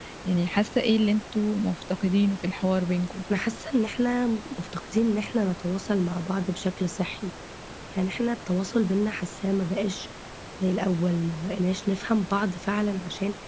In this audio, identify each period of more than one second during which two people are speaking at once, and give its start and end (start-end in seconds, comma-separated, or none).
none